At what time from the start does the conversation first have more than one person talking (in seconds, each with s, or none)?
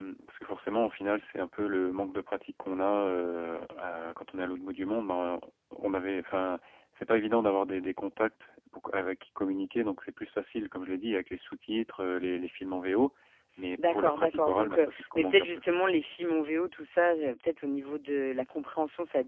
13.9 s